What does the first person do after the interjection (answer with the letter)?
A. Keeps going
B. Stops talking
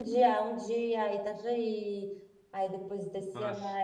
A